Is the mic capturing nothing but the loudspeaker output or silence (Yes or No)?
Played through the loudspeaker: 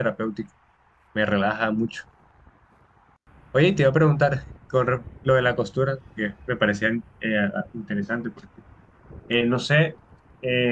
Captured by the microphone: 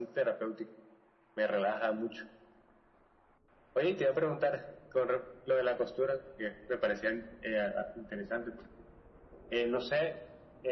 Yes